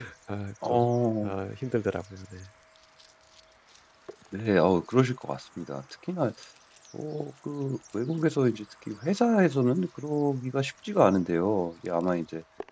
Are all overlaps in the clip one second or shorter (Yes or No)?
Yes